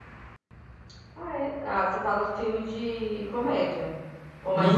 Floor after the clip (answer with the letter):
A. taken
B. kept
A